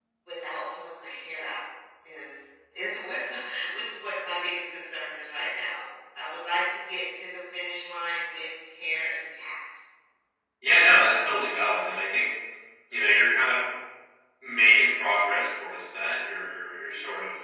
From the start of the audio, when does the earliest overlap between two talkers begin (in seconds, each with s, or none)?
none